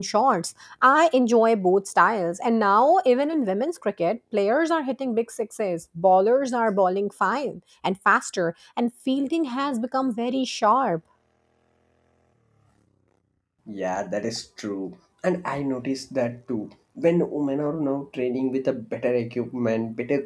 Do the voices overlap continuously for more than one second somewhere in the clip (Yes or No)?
No